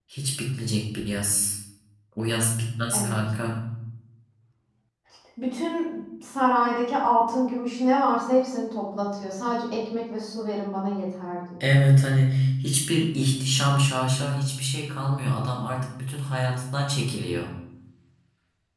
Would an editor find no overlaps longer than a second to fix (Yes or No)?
Yes